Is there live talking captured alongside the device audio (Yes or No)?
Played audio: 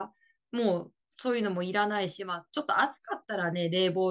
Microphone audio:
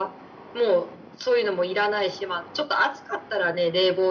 No